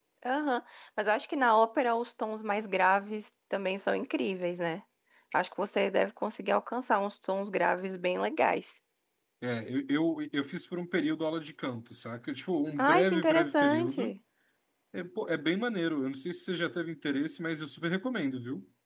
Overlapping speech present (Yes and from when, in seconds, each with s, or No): Yes, from 12.8 s